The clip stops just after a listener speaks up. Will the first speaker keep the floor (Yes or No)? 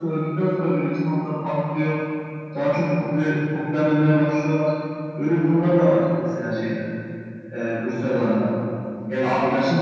Yes